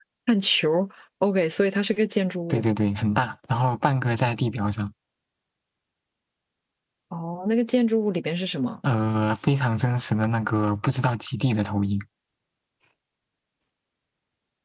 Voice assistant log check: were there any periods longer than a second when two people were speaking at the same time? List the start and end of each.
none

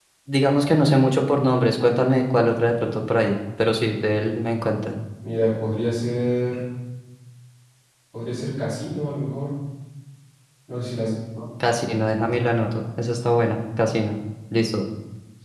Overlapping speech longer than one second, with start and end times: none

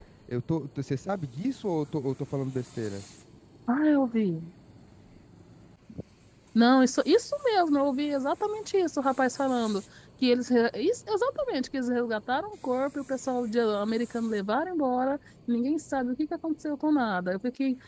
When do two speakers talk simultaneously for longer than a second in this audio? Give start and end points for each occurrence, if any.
none

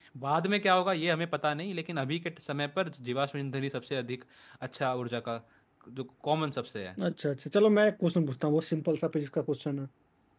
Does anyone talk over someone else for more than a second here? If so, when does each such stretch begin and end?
none

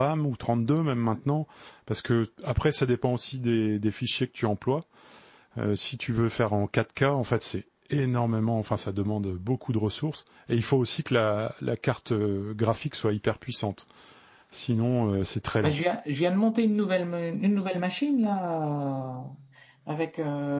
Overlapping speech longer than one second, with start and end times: none

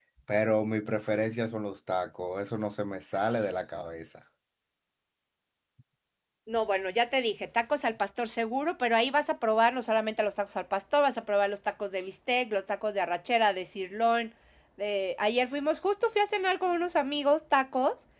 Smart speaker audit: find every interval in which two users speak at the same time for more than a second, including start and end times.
none

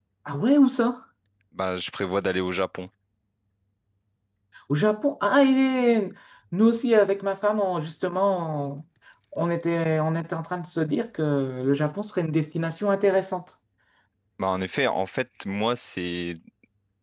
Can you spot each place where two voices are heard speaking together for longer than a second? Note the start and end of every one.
none

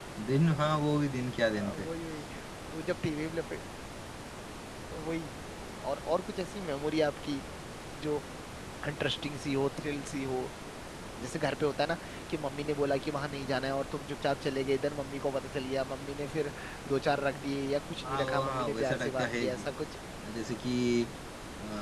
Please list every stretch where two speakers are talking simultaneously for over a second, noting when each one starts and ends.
18.1-19.4

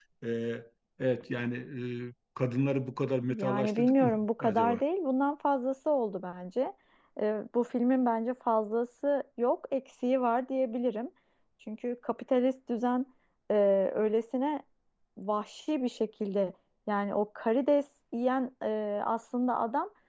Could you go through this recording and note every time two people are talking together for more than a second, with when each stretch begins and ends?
3.3-4.8

